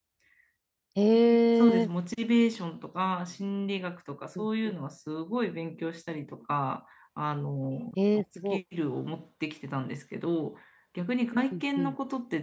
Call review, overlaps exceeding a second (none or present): none